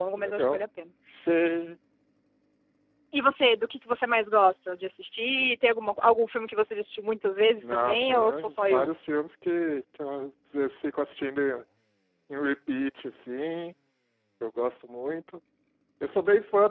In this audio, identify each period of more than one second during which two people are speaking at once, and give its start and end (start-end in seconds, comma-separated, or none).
7.6-8.9